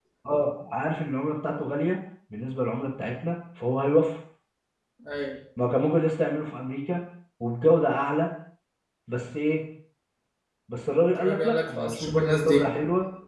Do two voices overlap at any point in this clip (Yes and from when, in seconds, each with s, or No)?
Yes, from 11.2 s